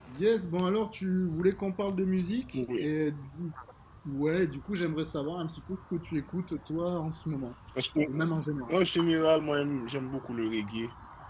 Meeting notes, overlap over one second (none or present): none